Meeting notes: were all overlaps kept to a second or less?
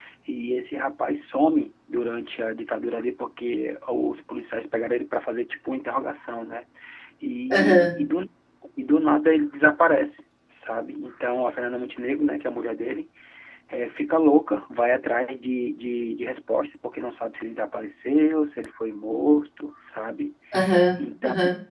Yes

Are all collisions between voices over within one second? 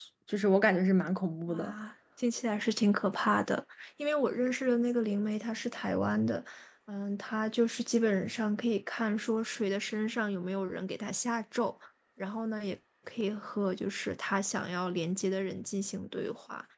Yes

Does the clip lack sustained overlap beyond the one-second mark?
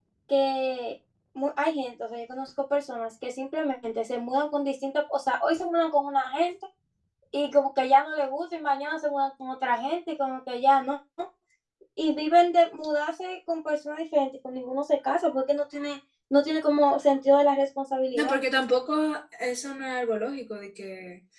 Yes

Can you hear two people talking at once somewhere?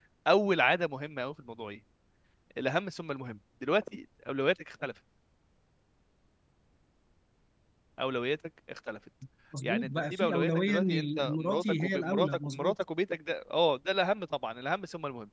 Yes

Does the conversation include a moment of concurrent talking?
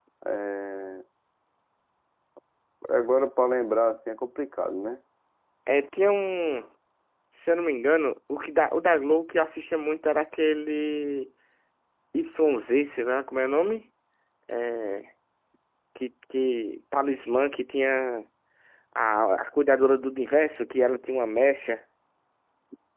No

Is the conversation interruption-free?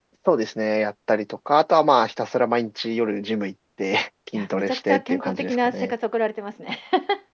No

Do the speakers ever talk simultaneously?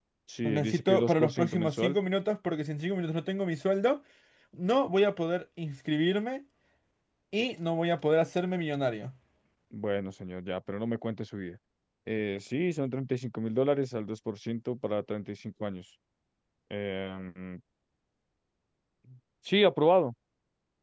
Yes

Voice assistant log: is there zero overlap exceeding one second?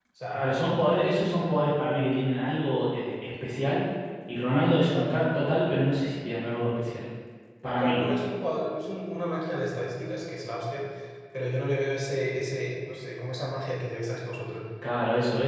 Yes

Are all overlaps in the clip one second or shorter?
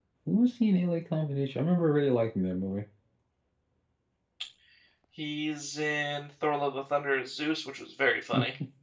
Yes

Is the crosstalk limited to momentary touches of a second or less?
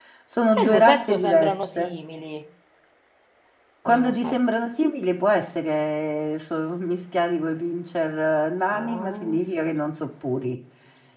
No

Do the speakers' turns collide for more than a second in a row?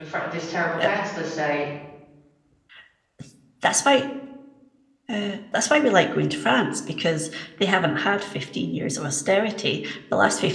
No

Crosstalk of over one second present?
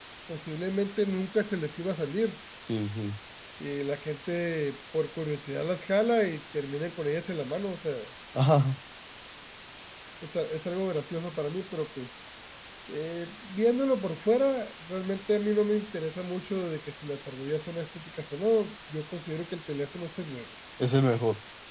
No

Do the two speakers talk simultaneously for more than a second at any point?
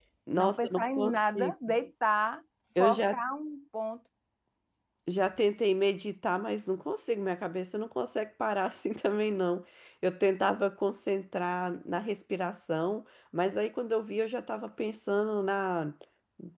Yes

